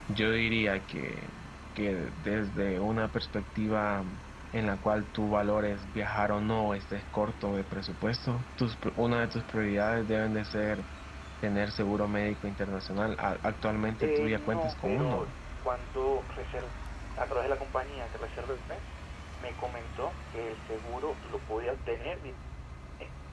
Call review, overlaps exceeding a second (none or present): present